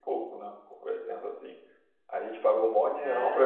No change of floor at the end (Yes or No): Yes